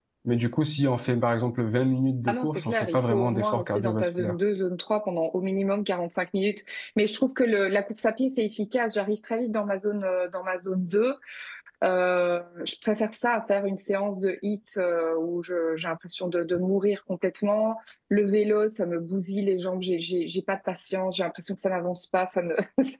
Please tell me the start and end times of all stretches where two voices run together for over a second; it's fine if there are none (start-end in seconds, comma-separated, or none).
2.3-4.3